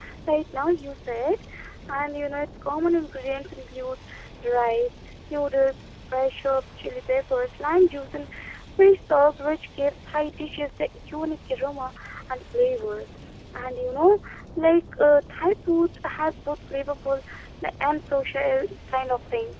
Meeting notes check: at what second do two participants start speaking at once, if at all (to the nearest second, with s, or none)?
none